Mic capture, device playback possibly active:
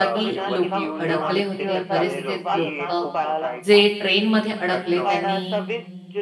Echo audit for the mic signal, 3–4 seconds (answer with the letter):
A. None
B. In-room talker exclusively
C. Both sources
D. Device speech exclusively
C